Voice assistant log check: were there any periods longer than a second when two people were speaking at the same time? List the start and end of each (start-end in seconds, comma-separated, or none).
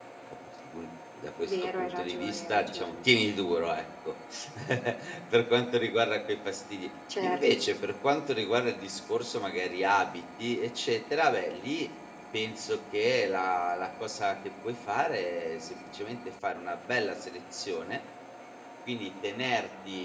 1.4-3.0